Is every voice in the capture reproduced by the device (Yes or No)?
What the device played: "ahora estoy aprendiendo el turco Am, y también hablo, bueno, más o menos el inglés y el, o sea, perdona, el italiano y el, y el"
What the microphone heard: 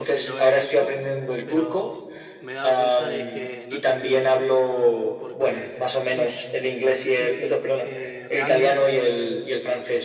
No